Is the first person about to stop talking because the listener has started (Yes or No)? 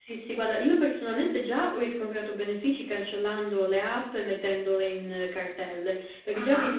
No